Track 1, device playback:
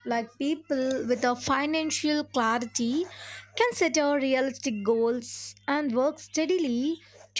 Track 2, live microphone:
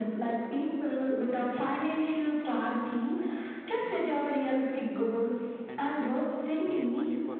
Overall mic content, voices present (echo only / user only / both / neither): both